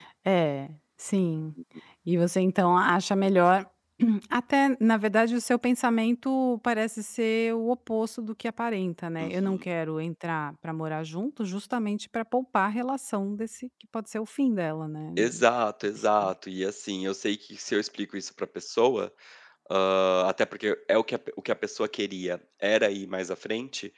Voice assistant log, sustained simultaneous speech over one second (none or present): none